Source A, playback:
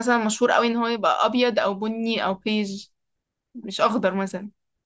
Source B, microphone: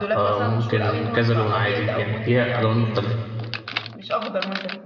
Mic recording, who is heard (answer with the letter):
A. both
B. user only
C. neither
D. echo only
A